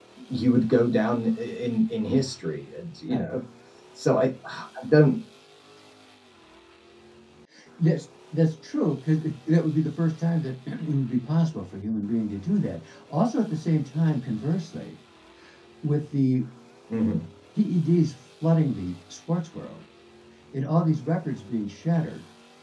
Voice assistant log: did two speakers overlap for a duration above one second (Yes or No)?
No